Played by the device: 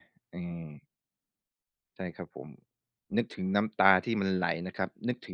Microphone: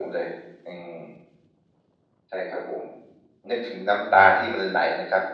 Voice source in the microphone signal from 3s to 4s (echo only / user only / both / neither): echo only